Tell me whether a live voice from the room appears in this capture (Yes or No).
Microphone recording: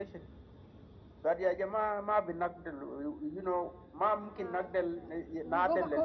Yes